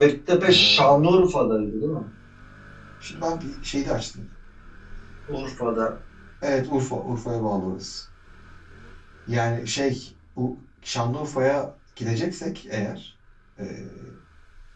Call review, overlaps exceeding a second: none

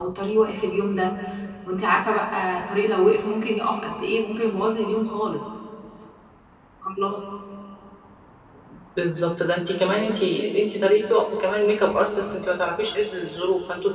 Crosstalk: none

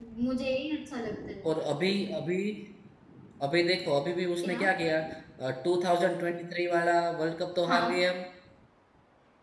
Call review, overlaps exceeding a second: none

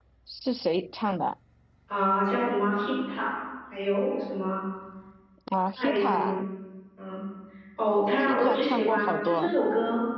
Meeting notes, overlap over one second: present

